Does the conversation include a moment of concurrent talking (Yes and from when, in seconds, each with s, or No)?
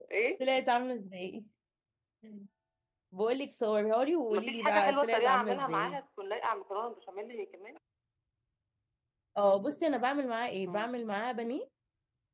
Yes, from 4.3 s